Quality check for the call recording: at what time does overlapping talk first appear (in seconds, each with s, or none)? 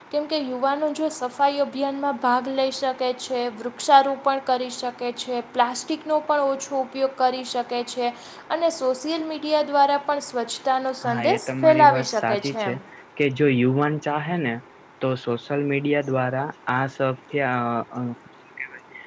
11.0 s